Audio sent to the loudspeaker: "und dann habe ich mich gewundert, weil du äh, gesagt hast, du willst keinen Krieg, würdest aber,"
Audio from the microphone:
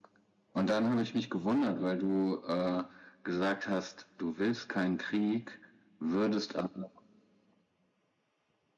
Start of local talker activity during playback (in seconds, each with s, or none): none